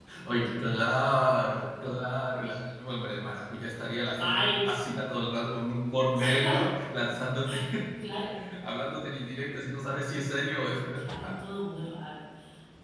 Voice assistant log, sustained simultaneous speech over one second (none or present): none